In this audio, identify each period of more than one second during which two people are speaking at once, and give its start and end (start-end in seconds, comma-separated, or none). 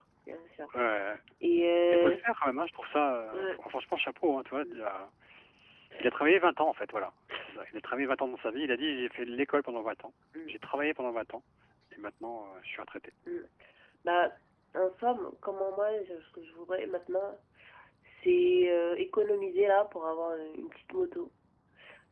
none